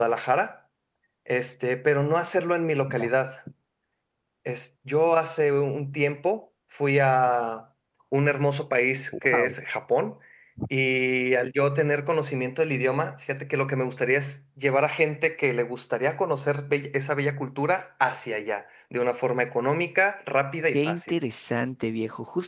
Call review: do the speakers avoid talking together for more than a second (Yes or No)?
Yes